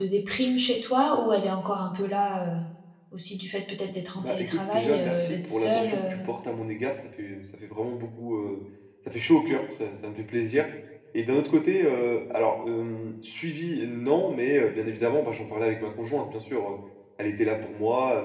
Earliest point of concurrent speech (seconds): 4.2 s

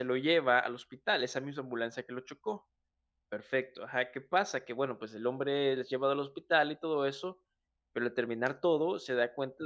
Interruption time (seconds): none

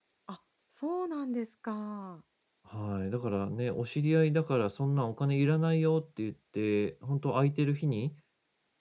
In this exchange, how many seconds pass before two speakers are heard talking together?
none

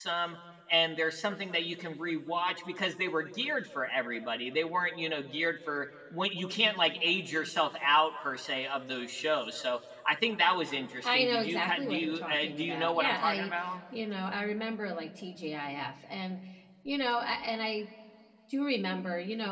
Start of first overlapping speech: 11.0 s

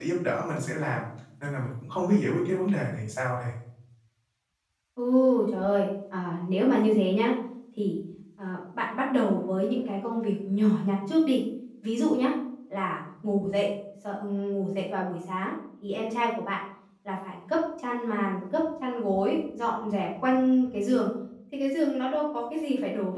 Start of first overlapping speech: none

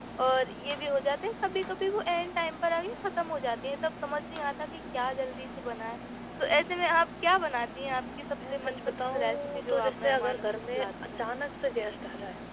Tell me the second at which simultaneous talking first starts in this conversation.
8.4 s

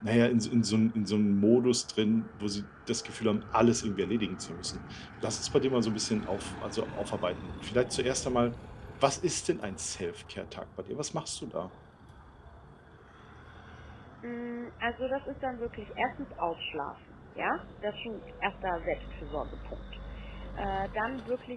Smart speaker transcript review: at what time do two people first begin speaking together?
none

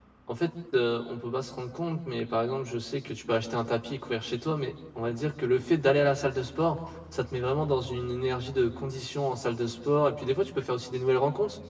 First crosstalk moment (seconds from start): none

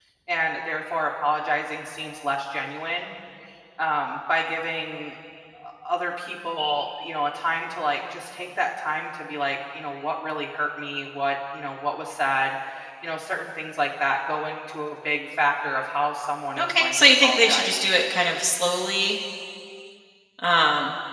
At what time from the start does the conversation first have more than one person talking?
16.6 s

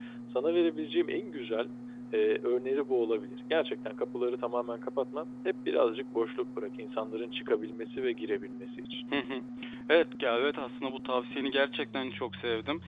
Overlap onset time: none

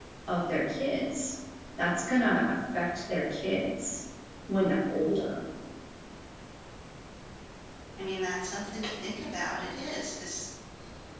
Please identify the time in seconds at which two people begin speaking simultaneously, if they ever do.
none

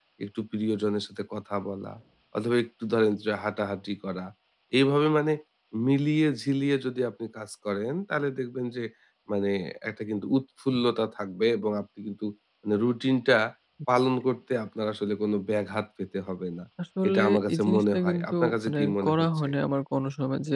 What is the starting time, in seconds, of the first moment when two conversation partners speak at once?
17.1 s

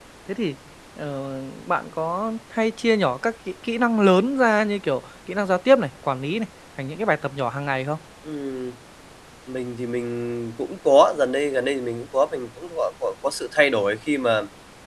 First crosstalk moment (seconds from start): none

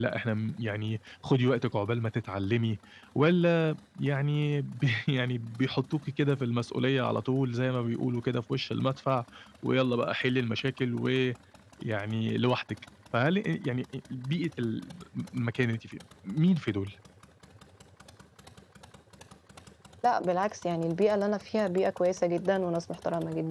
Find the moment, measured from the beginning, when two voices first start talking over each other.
none

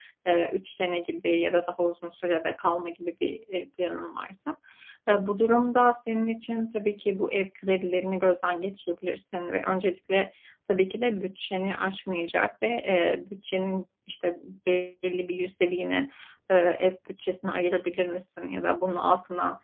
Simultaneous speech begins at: none

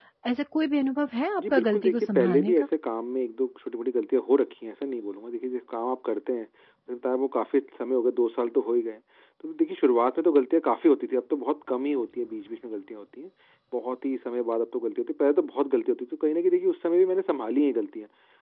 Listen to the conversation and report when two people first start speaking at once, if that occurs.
1.4 s

